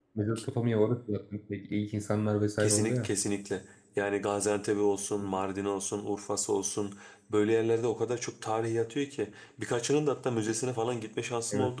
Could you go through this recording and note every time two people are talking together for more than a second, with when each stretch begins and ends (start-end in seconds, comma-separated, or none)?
none